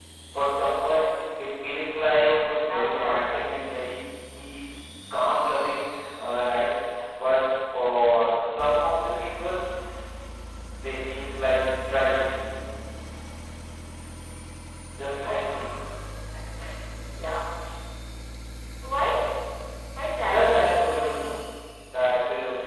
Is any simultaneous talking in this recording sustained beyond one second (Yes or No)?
Yes